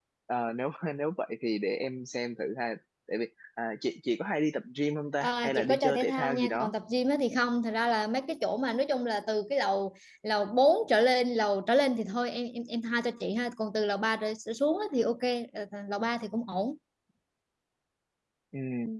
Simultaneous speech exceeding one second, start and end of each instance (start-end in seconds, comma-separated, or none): 5.2-6.7